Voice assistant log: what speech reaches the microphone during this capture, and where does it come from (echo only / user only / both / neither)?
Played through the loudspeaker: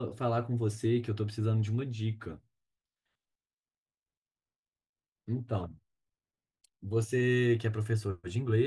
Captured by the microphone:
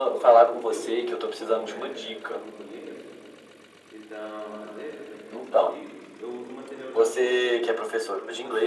both